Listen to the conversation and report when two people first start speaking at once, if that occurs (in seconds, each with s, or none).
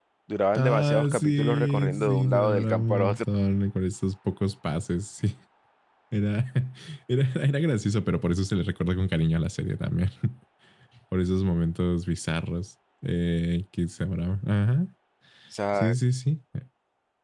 0.6 s